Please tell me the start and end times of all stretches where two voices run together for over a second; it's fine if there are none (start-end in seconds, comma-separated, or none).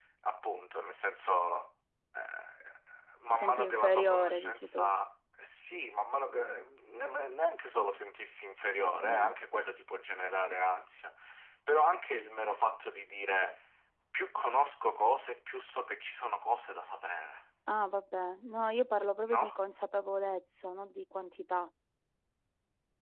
3.3-4.9